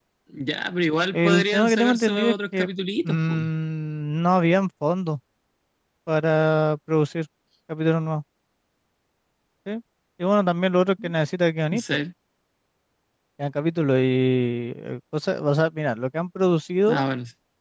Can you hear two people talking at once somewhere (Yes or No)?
Yes